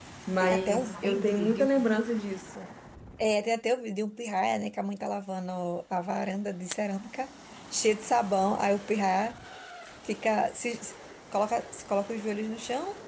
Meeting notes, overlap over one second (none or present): present